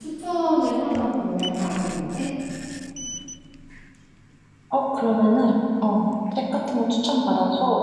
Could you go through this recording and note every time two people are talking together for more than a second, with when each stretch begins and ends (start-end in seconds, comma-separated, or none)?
none